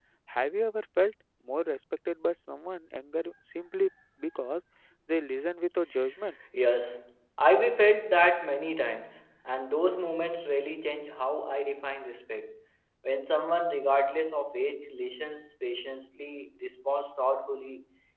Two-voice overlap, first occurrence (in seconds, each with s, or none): none